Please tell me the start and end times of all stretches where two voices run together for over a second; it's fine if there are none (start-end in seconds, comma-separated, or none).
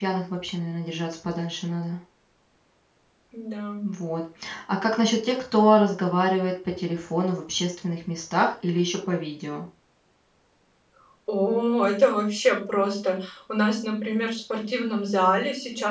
none